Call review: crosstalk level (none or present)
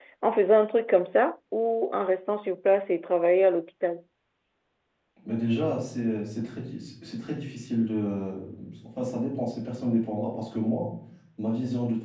none